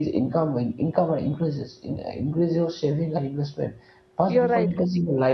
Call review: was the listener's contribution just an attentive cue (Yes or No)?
Yes